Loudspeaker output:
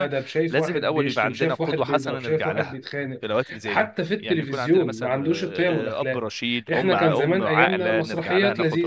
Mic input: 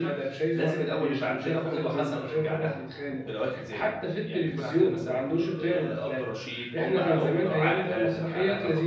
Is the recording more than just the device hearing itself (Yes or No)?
No